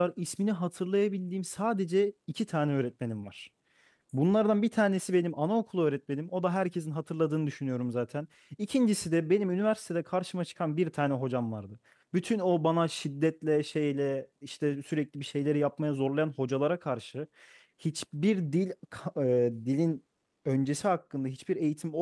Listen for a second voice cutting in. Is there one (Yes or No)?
No